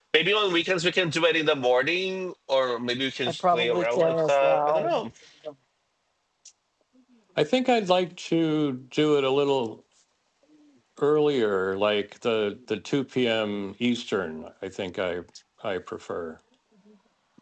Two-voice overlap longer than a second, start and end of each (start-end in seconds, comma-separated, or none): 3.5-5.0